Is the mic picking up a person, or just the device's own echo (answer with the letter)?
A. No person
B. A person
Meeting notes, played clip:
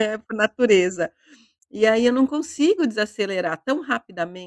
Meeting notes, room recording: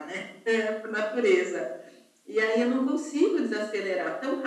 A